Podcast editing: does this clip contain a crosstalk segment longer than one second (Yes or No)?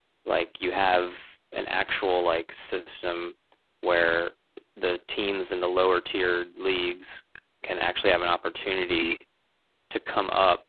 No